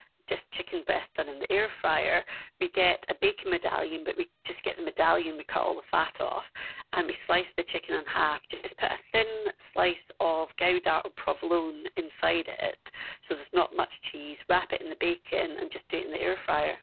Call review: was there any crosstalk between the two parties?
No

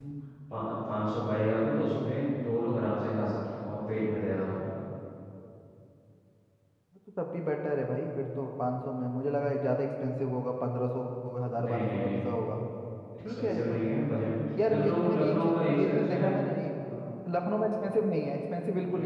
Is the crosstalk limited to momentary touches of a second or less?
No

